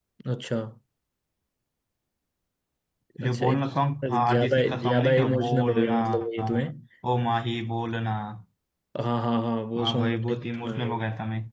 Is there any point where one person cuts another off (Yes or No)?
Yes